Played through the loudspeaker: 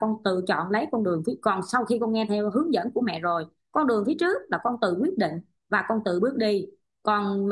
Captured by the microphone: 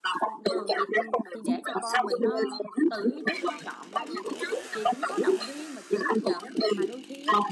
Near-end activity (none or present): present